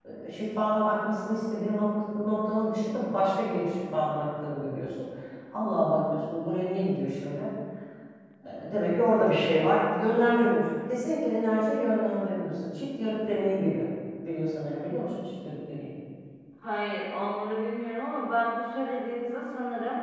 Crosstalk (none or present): none